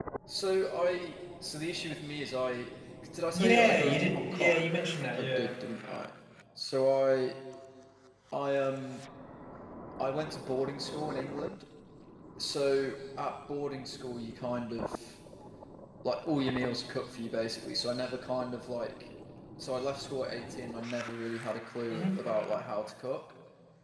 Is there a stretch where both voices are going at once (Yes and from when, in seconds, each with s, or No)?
Yes, from 3.3 s